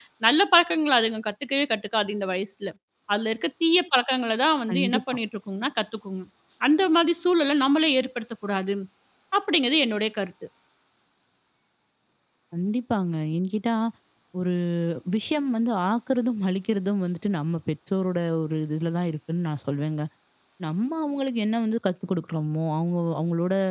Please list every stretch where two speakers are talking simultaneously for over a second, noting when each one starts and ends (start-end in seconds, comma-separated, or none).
none